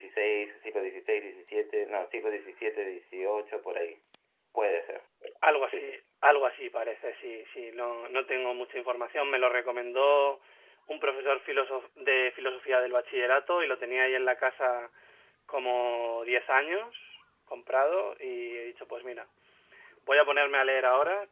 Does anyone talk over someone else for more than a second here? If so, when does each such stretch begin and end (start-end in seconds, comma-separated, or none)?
none